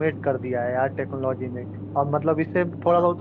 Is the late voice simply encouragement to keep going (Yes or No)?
Yes